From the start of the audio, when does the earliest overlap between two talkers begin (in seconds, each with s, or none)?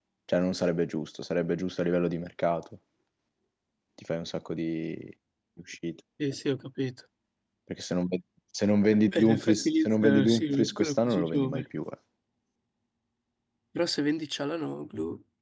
9.1 s